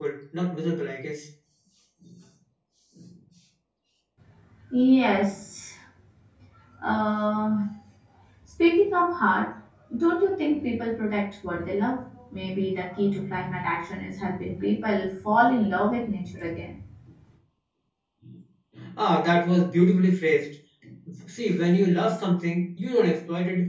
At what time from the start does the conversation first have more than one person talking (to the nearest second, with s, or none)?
none